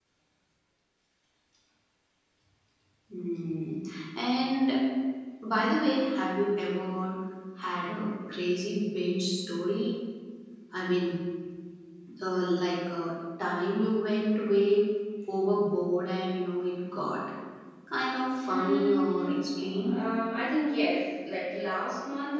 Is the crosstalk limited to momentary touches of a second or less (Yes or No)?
No